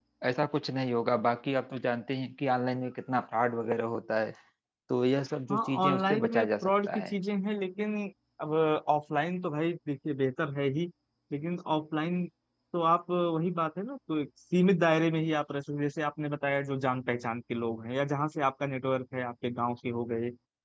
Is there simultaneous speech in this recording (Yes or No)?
Yes